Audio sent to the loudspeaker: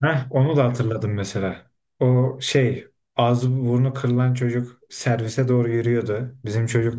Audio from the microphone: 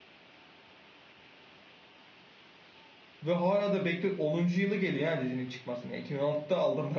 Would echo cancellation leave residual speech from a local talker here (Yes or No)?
Yes